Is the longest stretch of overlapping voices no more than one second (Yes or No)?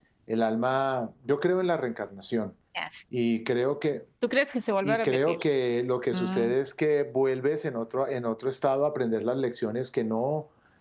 Yes